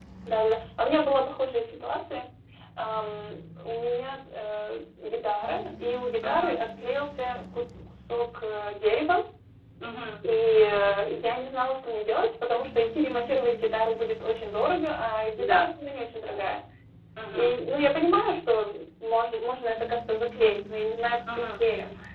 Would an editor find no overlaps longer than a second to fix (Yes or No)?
Yes